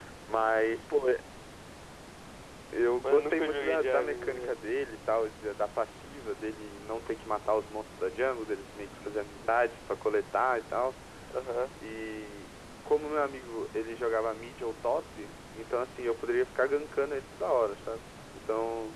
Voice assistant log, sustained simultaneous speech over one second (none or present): present